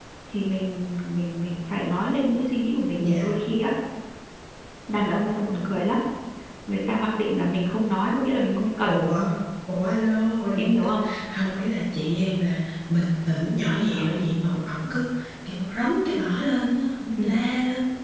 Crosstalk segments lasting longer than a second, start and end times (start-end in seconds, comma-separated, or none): none